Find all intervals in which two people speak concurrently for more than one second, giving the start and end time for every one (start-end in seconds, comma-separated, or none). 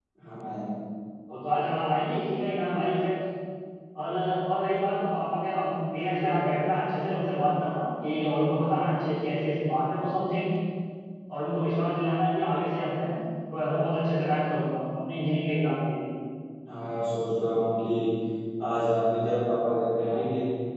none